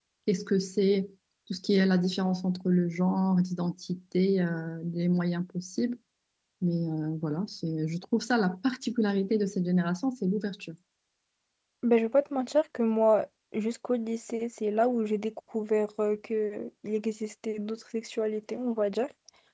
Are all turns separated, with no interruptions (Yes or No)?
Yes